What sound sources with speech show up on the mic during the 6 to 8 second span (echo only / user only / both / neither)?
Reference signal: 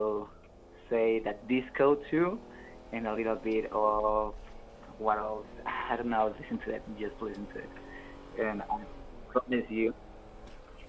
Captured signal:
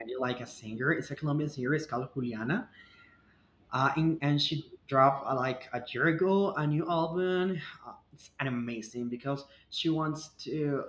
user only